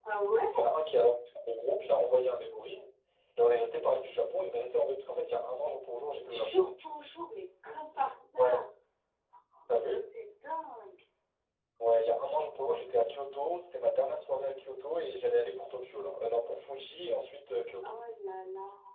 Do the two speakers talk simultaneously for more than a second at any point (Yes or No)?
No